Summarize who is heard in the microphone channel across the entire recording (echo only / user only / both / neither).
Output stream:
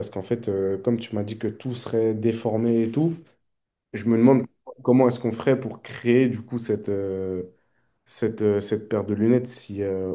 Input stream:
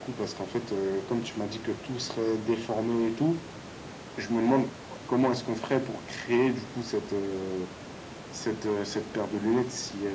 echo only